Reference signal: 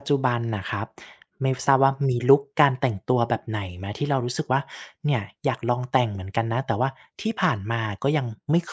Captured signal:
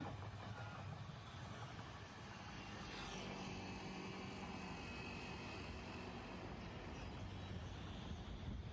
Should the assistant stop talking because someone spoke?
No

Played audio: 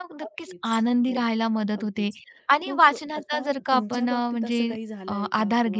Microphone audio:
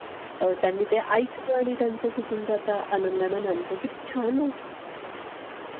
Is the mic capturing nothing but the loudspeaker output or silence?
No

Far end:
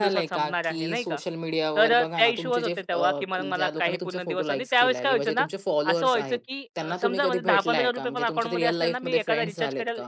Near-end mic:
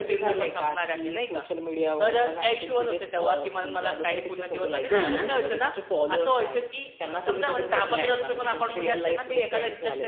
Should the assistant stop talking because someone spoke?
Yes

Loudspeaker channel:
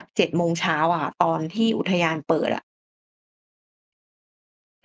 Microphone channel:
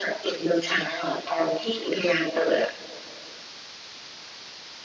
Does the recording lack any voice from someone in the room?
Yes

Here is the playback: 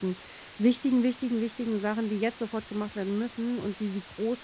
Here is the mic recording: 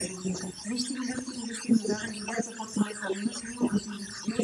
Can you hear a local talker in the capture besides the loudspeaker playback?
No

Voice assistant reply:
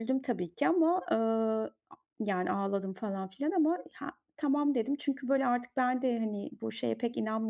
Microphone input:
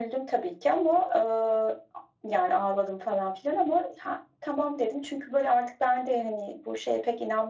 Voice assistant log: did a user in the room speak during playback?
No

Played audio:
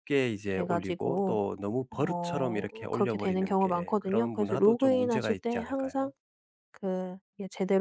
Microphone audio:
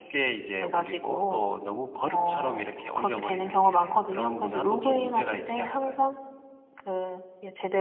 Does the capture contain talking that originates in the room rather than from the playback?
No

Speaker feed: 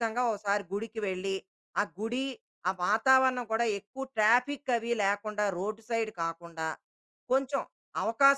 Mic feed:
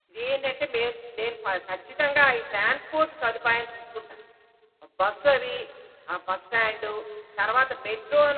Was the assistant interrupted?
Yes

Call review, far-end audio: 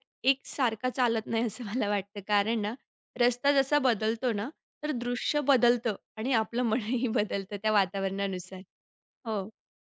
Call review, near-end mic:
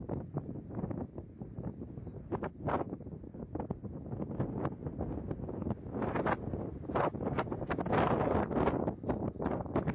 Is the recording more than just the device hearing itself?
No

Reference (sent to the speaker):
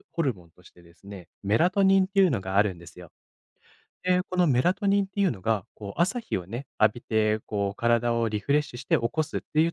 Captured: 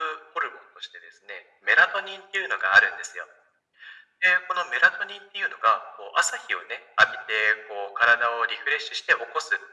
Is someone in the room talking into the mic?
No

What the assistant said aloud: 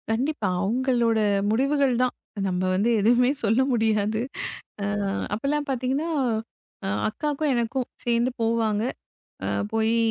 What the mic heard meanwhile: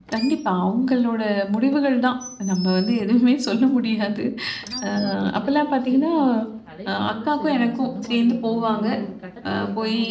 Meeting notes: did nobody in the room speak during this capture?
No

